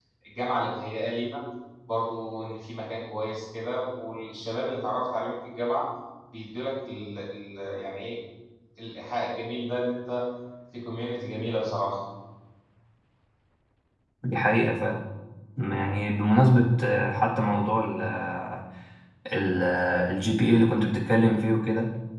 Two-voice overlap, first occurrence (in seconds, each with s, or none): none